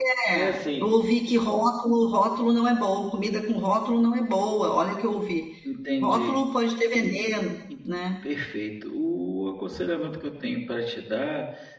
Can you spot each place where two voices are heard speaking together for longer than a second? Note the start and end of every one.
none

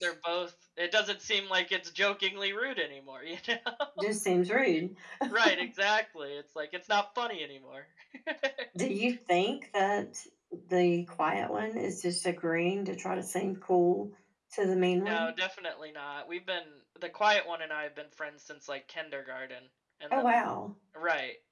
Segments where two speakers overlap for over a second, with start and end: none

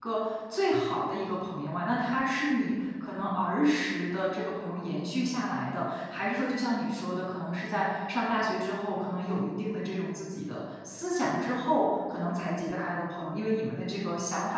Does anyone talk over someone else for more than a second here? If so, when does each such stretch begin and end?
none

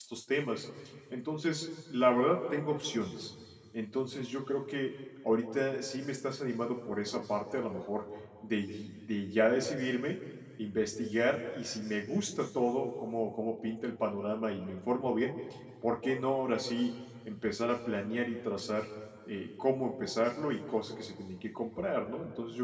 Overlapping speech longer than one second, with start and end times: none

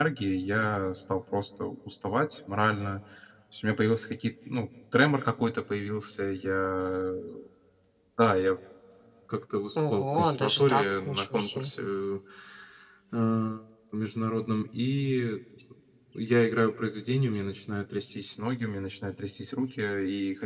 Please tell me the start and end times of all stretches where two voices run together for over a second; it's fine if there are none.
9.9-11.7

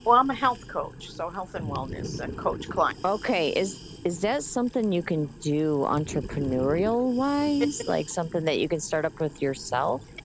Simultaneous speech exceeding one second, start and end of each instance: none

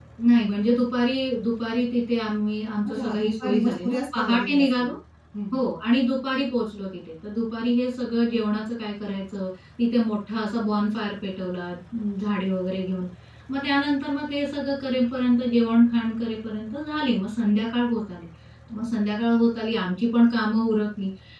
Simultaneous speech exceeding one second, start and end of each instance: 2.9-4.9

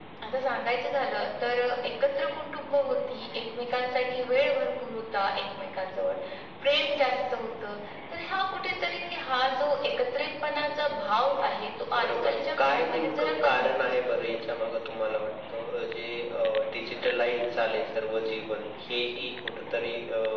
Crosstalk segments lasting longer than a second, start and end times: 12.0-14.4

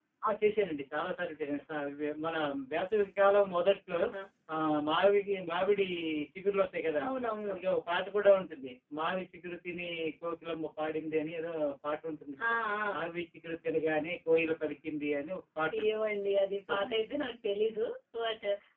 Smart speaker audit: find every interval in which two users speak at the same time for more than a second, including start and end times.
none

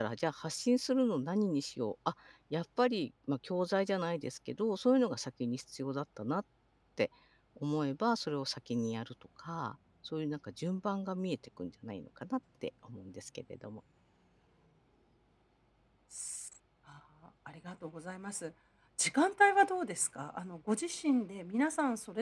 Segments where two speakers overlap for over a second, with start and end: none

